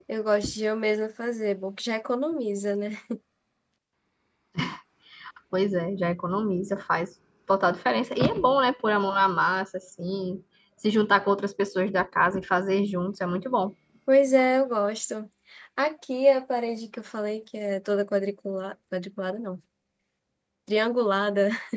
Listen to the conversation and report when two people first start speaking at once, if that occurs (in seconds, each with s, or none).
none